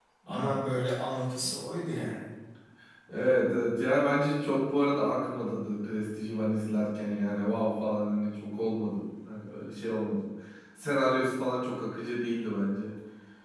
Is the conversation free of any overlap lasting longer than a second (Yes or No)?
Yes